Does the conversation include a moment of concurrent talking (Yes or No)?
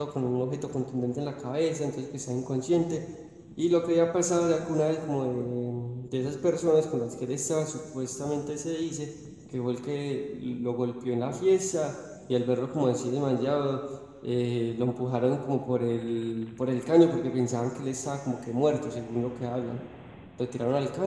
No